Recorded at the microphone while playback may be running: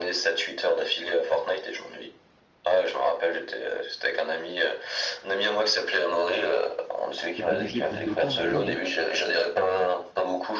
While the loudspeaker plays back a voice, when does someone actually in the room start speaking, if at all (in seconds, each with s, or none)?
7.3 s